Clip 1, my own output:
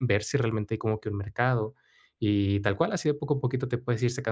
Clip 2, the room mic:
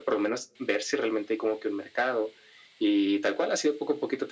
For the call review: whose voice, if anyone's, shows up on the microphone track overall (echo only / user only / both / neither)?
echo only